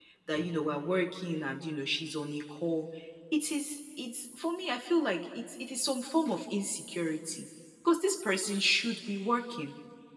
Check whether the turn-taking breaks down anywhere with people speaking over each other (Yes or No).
No